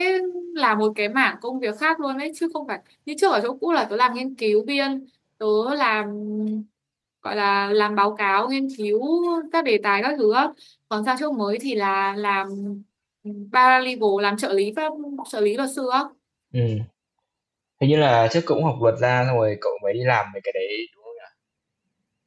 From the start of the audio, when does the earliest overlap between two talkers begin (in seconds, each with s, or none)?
none